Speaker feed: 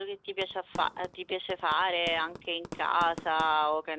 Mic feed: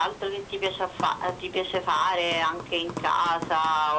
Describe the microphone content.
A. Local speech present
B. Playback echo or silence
B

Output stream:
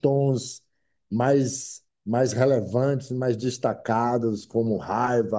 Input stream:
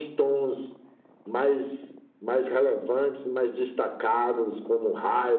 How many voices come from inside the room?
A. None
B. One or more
A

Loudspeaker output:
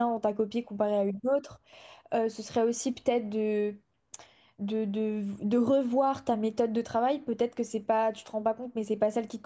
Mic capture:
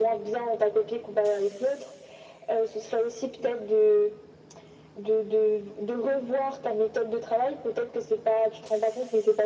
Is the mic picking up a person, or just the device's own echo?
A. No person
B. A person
A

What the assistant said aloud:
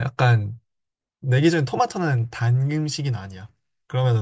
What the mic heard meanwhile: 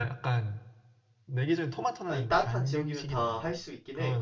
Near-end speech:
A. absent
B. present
B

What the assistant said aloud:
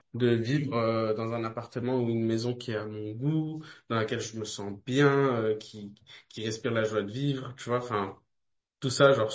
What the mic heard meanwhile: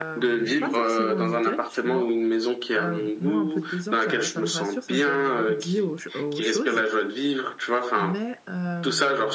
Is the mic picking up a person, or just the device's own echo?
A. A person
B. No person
A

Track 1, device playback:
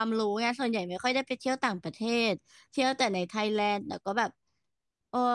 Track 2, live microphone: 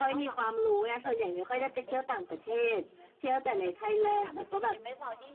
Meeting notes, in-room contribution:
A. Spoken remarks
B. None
A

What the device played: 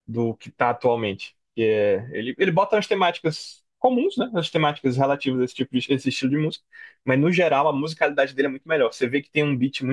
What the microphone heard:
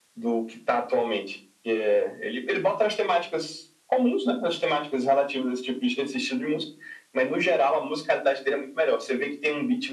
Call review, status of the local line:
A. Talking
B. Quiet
B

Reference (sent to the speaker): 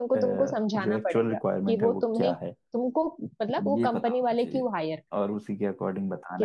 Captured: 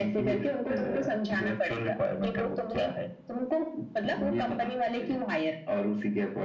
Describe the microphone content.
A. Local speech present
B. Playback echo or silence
B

